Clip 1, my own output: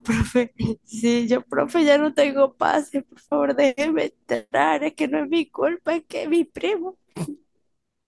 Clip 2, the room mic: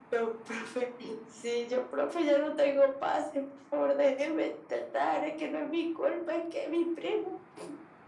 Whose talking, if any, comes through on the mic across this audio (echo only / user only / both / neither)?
echo only